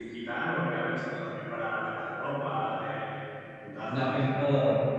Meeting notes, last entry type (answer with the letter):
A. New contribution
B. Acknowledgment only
A